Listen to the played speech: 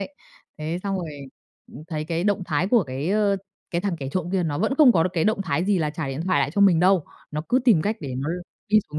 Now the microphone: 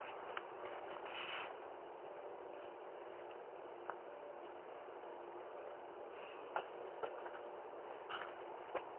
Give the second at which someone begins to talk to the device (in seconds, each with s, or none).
none